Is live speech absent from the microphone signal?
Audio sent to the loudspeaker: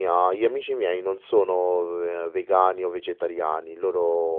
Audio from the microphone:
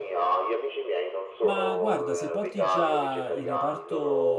No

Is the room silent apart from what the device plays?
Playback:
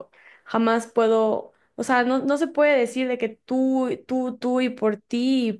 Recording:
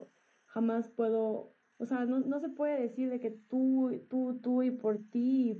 Yes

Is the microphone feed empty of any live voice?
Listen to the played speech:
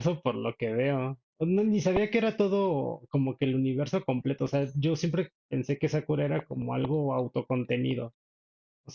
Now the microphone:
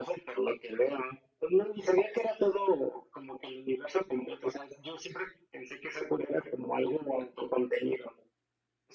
Yes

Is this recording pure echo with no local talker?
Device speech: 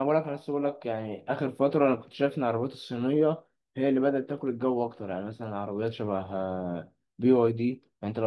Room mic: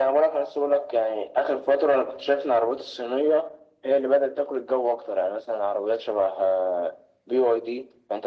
Yes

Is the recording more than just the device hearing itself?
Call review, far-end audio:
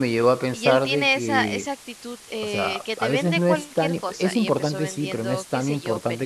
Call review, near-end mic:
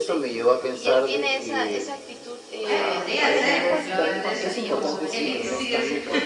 Yes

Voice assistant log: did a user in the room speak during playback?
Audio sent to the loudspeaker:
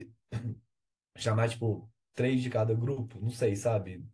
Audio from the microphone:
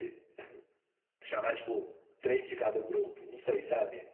No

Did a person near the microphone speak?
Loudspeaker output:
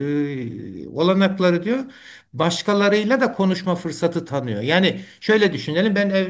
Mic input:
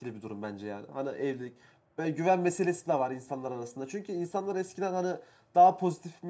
Yes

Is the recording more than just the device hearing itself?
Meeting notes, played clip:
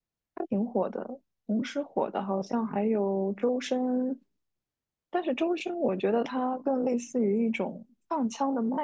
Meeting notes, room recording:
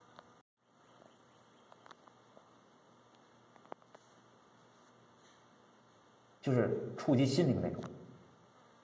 Yes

